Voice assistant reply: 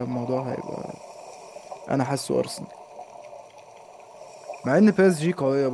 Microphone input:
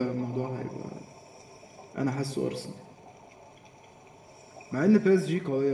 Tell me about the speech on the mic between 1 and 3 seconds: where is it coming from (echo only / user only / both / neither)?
echo only